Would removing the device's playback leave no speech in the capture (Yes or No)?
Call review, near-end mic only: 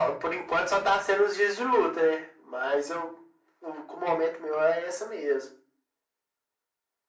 Yes